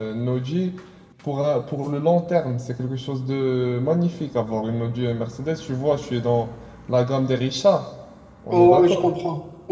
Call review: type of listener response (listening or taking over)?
taking over